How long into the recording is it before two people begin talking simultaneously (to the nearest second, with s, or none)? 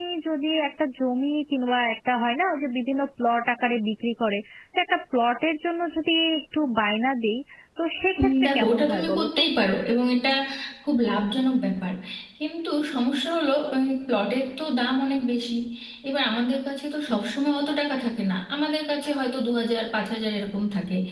8 s